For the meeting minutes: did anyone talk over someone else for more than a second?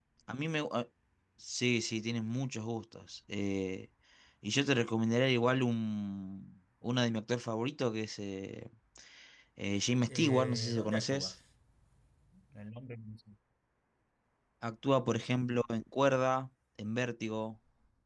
Yes, from 10.1 s

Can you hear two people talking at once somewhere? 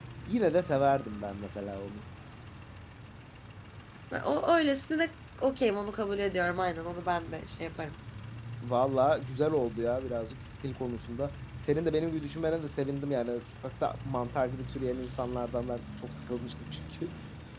No

